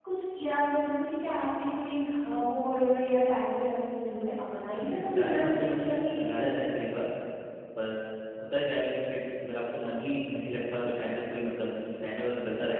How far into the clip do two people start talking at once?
4.8 s

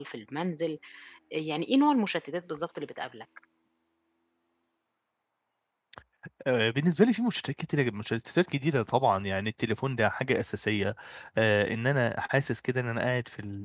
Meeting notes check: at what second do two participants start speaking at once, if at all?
none

